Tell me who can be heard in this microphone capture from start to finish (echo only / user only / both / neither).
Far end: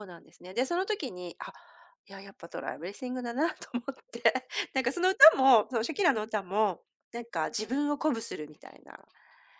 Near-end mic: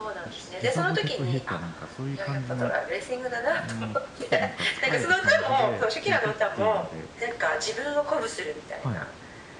both